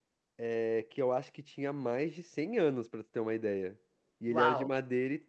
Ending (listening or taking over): listening